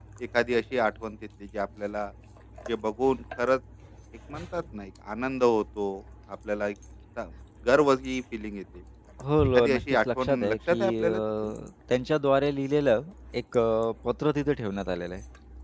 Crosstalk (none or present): present